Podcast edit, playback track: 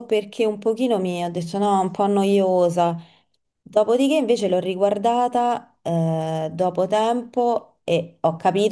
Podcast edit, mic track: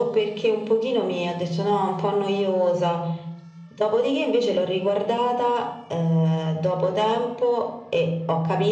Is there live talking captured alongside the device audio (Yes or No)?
No